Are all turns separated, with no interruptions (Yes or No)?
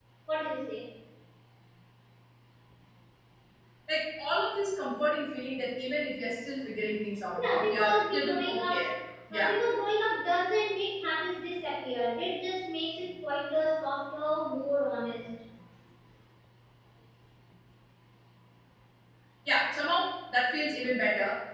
No